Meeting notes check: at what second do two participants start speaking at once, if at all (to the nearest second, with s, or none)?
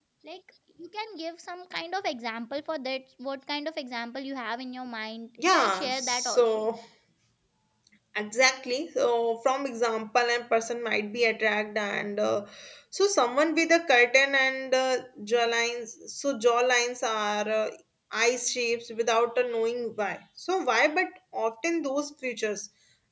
5 s